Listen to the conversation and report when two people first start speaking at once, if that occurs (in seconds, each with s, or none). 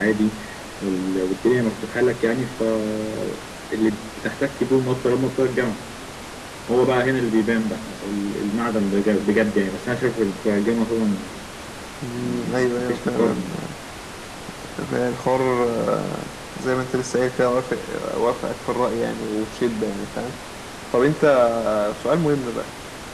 12.1 s